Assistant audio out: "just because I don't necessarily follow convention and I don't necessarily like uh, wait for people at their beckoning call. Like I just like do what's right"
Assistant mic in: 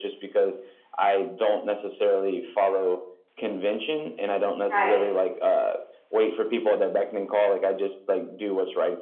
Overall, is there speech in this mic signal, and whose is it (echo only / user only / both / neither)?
both